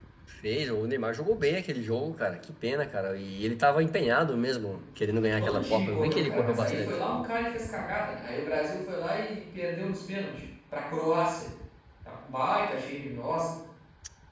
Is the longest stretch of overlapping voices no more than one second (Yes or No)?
No